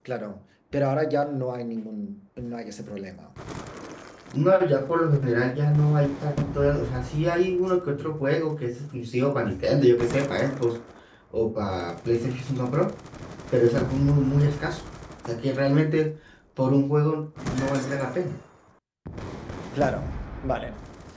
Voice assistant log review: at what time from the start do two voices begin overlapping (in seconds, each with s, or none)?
none